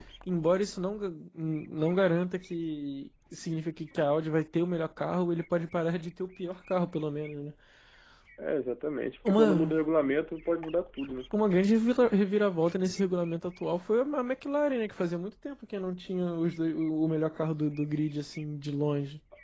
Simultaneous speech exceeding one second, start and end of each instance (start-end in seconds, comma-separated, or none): none